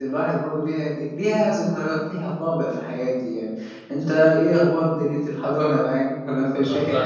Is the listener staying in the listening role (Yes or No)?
No